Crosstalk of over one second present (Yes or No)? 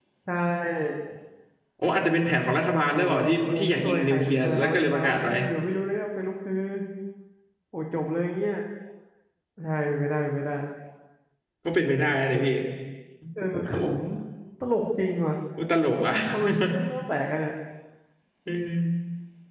Yes